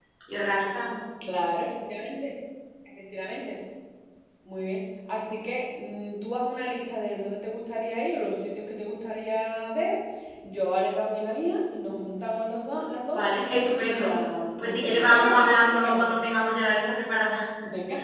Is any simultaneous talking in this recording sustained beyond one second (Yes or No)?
Yes